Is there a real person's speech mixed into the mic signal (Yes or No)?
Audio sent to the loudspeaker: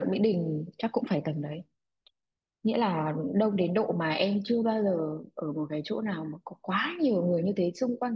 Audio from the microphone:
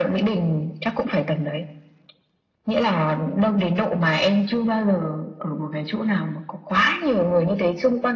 No